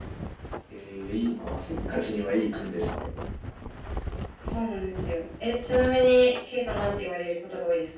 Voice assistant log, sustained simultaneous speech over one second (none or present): none